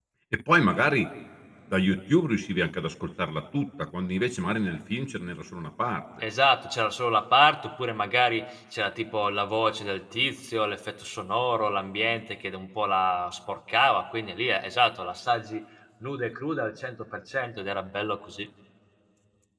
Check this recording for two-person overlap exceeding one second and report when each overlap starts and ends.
none

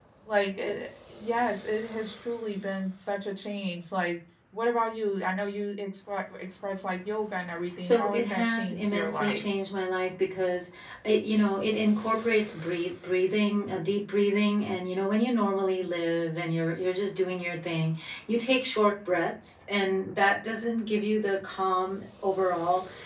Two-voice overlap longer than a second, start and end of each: 7.8-9.4

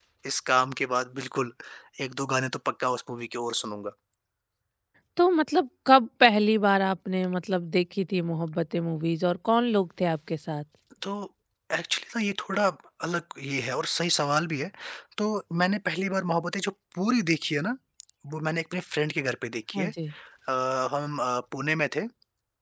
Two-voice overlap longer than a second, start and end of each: none

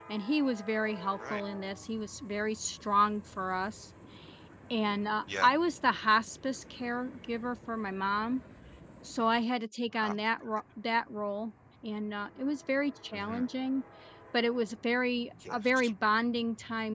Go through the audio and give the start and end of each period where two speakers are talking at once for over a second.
none

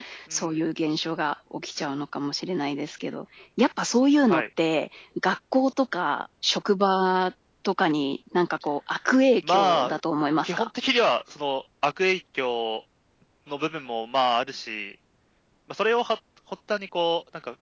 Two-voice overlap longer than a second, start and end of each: none

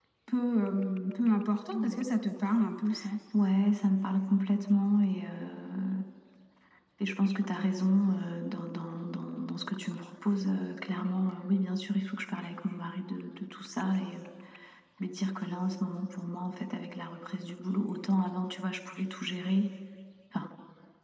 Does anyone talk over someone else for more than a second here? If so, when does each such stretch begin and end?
none

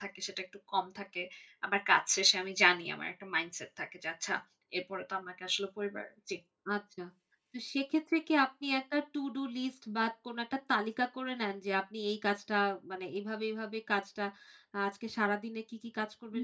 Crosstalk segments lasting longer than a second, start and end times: none

